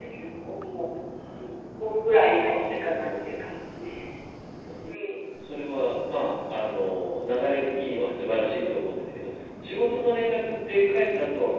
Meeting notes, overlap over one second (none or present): present